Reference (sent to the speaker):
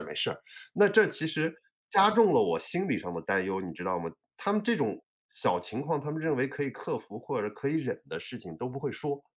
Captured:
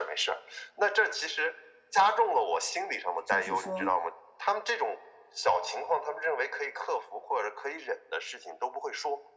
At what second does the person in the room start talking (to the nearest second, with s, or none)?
3 s